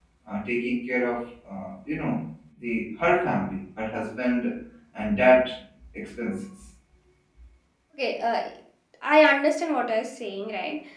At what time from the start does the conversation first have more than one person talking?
none

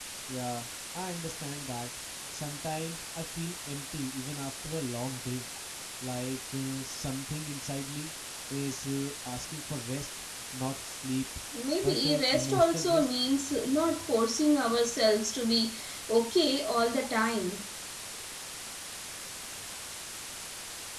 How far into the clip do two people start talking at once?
11.8 s

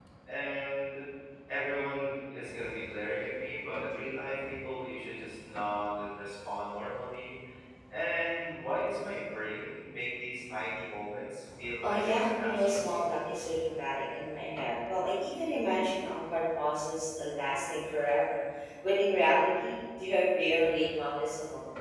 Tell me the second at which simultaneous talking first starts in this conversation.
11.8 s

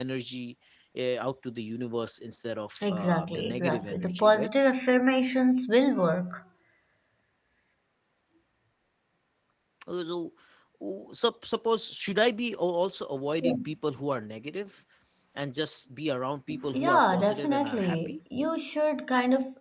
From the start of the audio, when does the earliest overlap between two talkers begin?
2.8 s

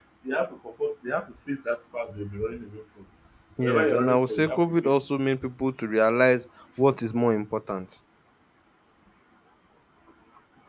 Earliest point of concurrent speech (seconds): 3.6 s

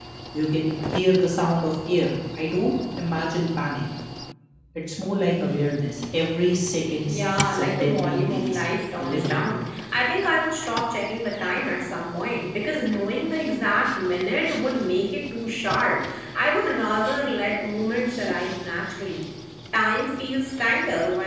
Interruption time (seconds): 7.1 s

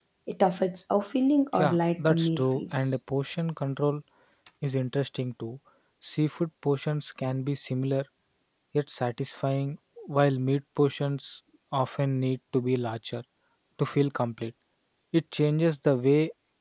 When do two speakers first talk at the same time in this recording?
1.5 s

